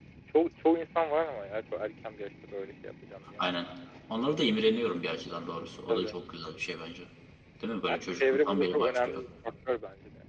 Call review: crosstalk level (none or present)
present